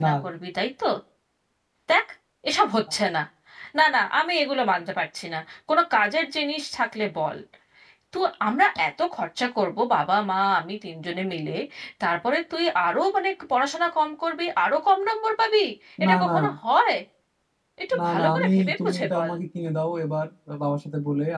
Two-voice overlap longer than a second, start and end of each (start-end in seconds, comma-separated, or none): 18.0-19.3